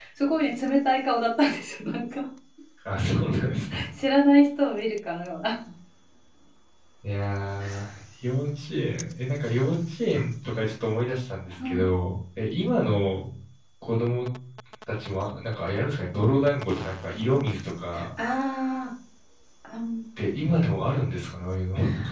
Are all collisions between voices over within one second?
Yes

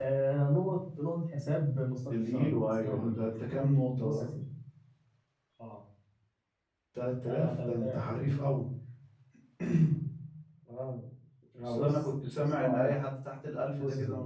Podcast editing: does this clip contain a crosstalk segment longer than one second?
Yes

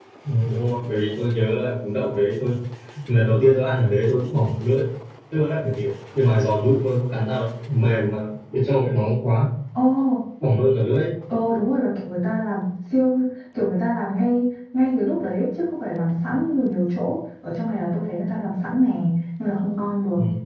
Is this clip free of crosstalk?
Yes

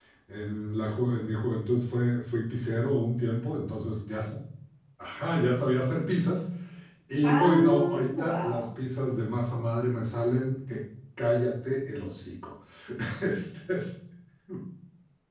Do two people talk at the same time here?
Yes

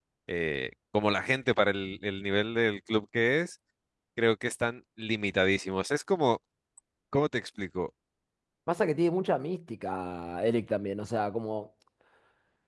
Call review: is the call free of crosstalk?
Yes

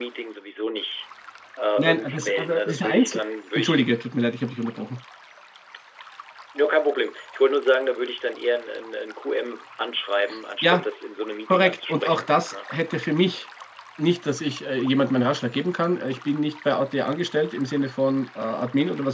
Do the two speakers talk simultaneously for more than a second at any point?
Yes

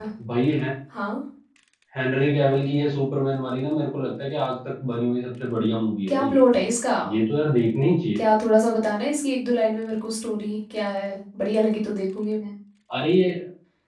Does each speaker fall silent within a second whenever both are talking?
Yes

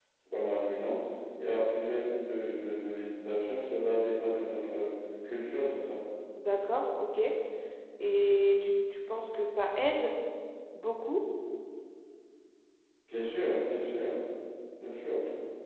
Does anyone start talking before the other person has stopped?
No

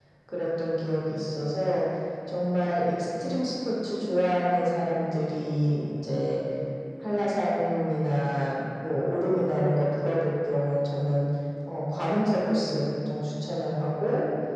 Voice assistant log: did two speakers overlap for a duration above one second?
No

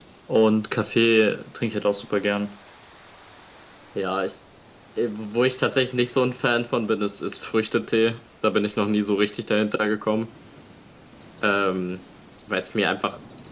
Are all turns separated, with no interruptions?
Yes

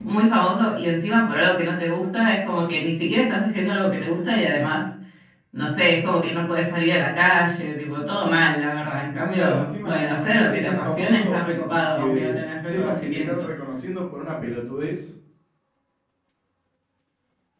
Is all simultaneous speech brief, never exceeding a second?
No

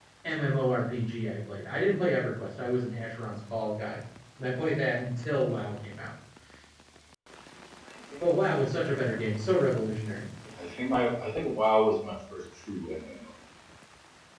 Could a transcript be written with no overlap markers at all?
Yes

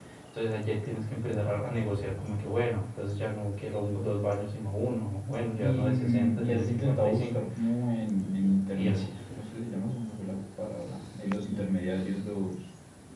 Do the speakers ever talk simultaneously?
Yes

